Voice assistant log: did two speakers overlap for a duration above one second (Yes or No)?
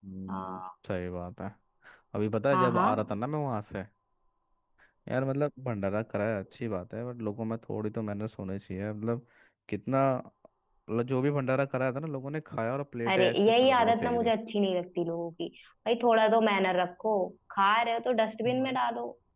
Yes